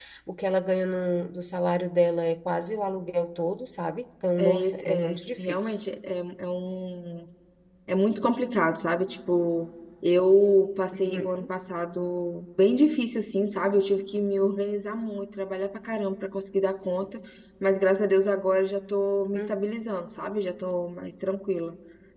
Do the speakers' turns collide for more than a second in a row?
Yes, from 4.4 s

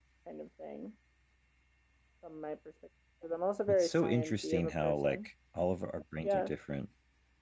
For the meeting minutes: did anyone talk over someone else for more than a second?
Yes, from 3.7 s

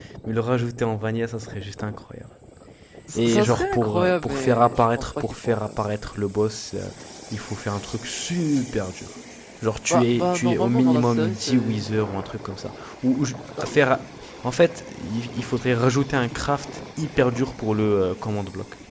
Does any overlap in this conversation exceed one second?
Yes, from 3.1 s

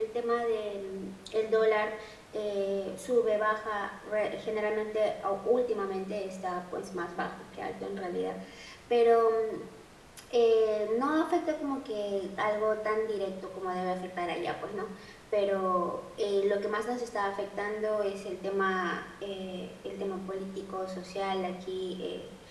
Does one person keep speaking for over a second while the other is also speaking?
No

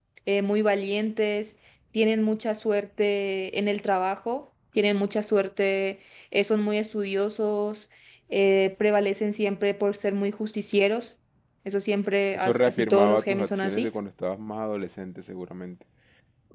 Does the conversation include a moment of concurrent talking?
Yes, from 12.3 s

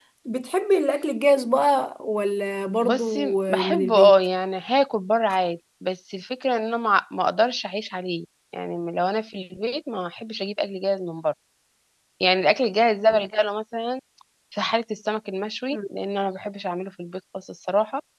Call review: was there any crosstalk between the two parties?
Yes, from 2.8 s

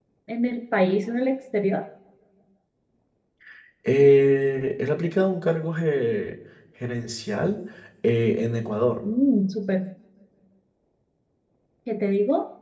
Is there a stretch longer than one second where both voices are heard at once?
No

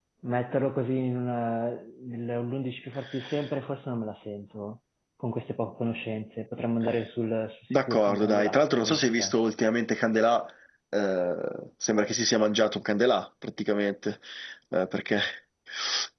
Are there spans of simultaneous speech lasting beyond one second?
Yes, from 7.7 s

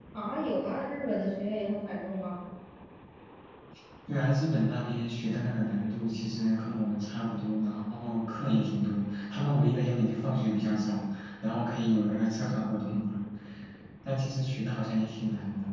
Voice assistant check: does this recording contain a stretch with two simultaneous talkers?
No

